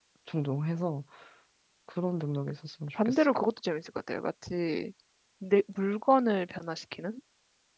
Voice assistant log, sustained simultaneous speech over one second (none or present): none